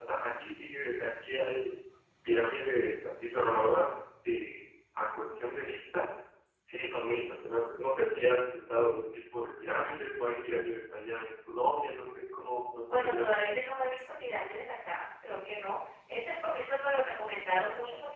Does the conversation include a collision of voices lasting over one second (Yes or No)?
No